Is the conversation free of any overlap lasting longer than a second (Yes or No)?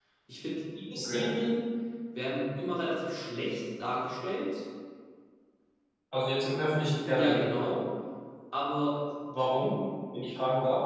Yes